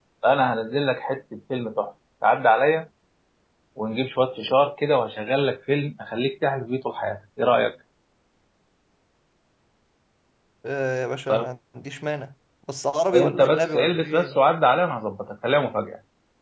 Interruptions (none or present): present